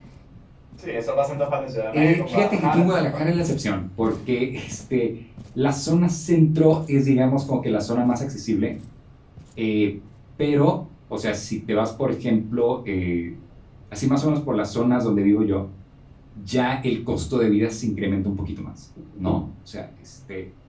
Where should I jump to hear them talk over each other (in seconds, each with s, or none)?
1.9 s